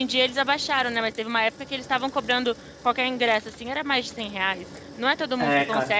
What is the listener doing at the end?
listening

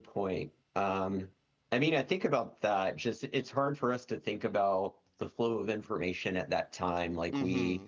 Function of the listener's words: listening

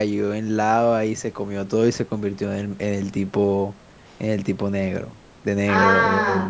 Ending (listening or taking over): taking over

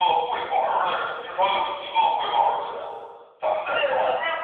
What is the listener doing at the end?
taking over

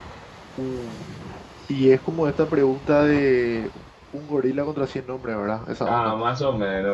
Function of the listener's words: taking over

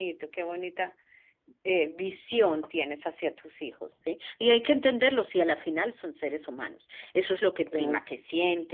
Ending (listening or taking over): listening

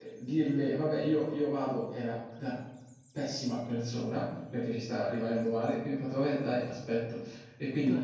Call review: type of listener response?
listening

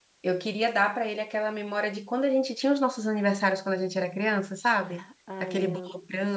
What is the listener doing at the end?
listening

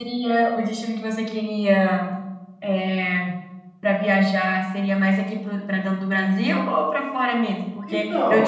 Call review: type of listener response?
listening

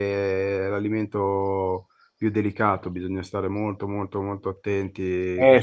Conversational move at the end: taking over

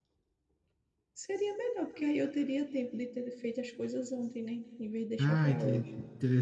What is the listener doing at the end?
taking over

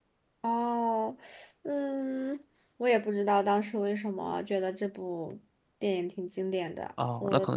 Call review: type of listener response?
taking over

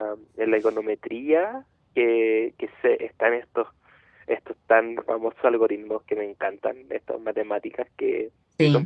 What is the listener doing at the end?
listening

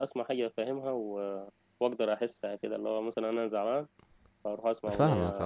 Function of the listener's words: taking over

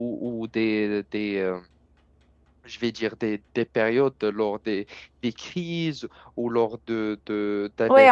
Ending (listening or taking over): taking over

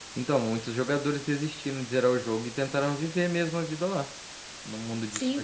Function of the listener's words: taking over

